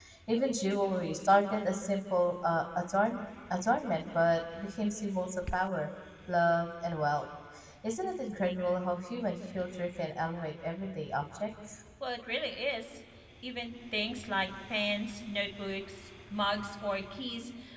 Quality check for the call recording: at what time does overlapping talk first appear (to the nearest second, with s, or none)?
none